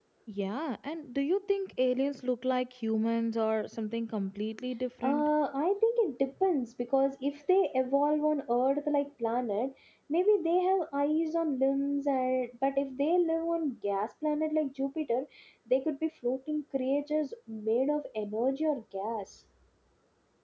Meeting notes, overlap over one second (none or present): none